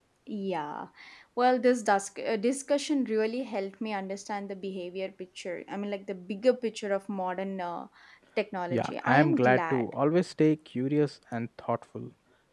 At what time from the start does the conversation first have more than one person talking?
9 s

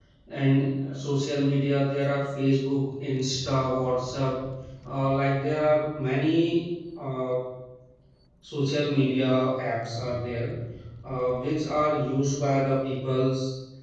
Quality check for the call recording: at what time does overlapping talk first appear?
none

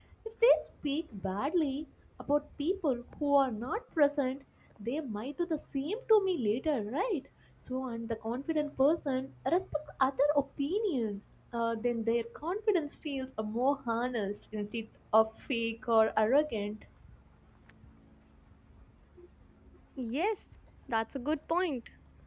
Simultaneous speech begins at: none

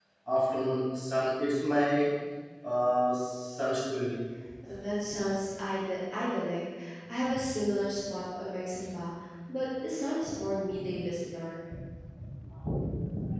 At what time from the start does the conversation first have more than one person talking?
none

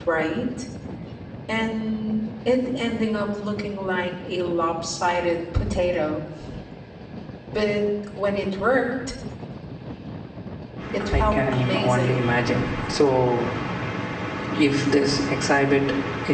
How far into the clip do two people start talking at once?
11 s

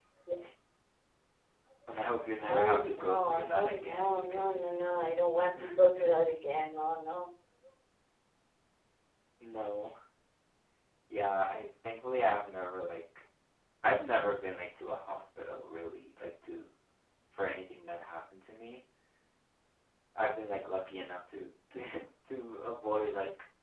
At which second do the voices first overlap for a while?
2 s

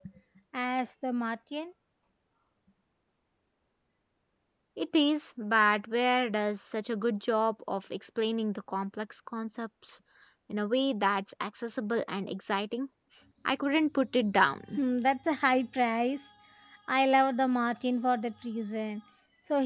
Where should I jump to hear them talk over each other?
none

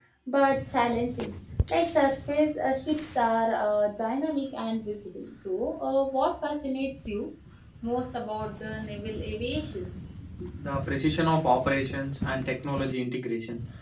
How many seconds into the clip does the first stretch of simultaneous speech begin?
none

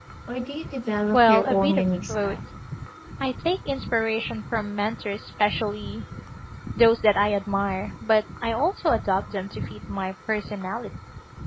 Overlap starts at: 1 s

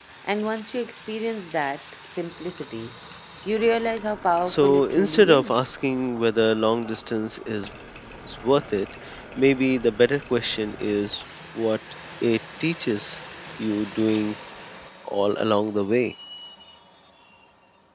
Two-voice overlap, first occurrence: 4 s

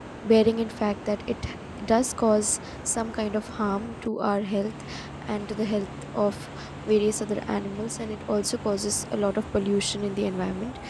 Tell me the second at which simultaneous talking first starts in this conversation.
none

